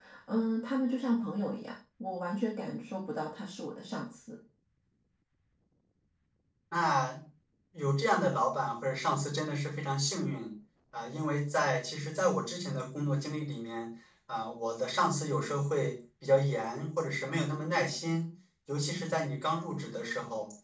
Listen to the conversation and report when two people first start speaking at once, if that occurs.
none

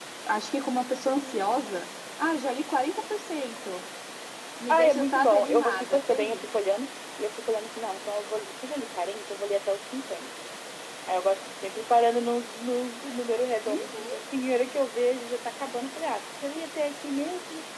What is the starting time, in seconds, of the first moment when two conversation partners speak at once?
4.7 s

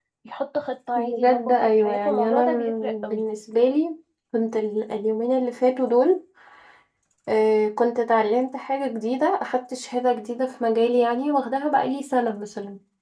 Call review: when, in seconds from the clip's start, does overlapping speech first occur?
1.0 s

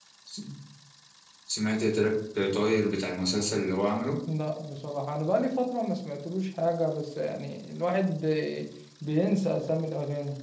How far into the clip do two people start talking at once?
none

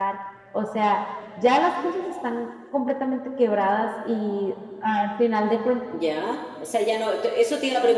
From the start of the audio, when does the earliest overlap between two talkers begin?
none

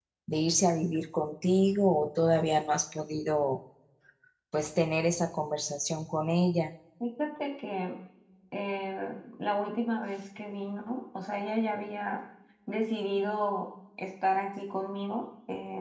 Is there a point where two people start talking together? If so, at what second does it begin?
none

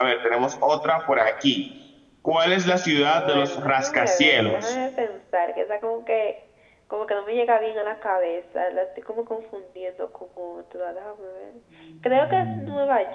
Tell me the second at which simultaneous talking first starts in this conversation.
3.1 s

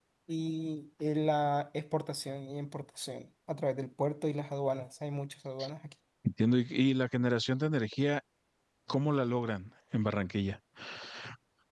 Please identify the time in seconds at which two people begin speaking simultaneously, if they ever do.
none

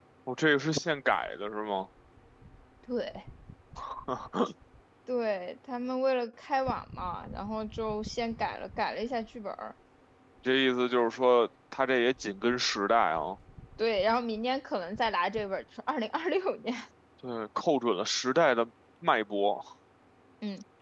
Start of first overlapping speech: none

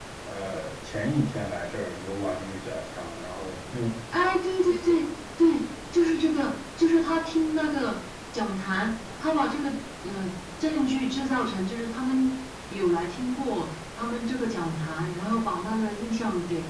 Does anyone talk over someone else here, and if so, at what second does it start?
none

